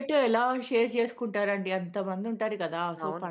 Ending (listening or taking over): listening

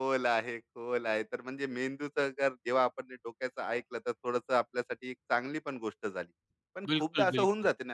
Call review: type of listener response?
listening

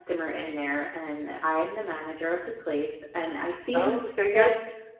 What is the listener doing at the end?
taking over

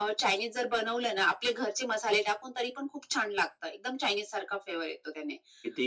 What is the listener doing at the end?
listening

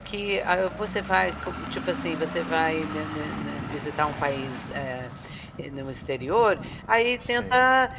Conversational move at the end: listening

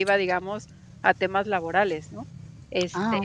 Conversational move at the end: listening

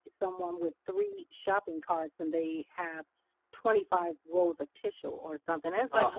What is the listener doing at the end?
listening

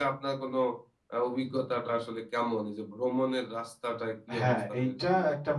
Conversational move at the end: taking over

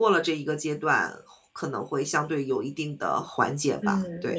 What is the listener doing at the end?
taking over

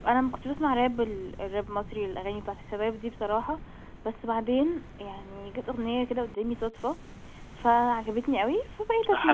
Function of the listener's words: taking over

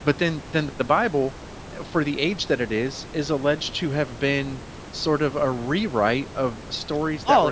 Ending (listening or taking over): taking over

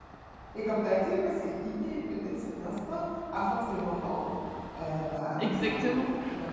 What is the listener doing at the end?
taking over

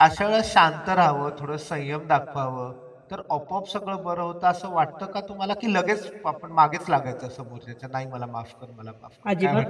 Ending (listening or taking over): taking over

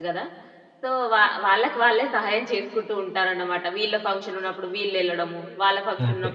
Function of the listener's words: listening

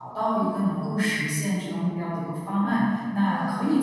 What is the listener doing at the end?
listening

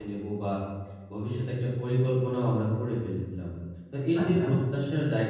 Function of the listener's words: listening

